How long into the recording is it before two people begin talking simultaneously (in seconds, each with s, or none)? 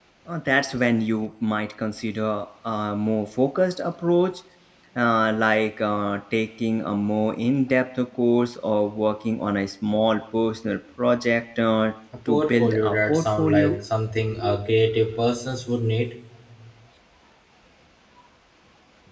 12.3 s